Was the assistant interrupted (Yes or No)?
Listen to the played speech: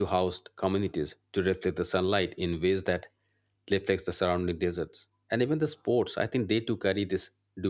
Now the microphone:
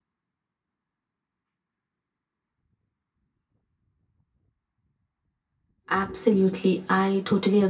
Yes